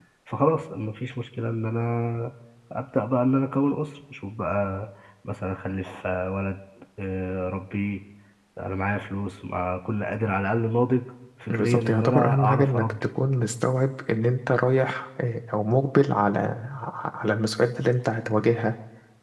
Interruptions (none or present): present